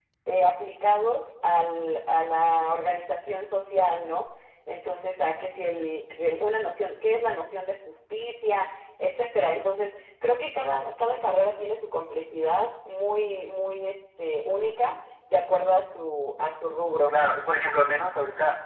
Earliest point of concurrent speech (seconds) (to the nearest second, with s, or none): none